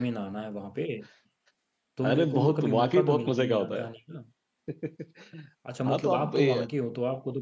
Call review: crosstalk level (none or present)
present